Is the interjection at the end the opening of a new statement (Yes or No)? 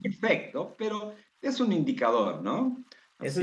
Yes